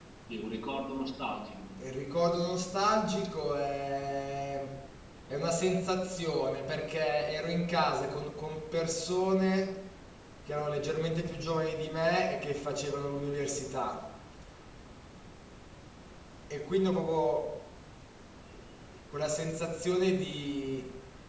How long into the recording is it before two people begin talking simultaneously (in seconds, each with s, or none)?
none